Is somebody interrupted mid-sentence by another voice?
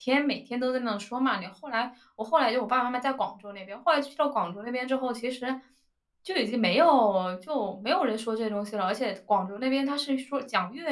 No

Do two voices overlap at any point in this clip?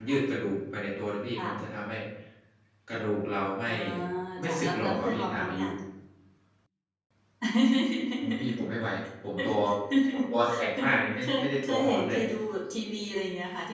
Yes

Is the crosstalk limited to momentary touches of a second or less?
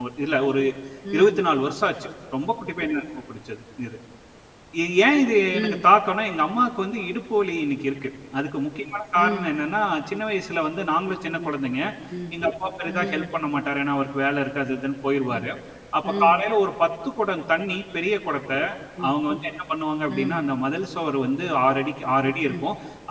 Yes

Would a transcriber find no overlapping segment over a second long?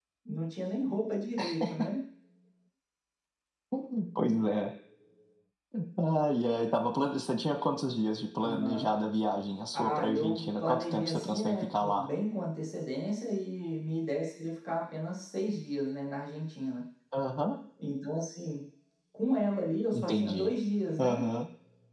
No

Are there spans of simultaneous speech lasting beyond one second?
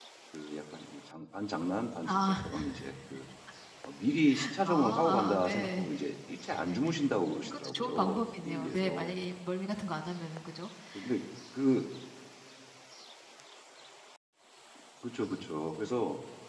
Yes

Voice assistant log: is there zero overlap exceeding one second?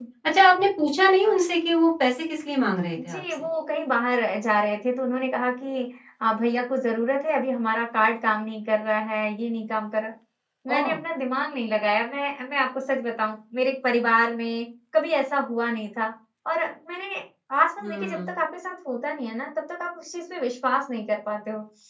Yes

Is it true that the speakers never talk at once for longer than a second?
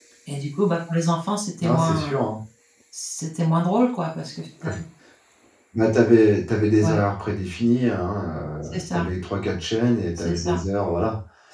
Yes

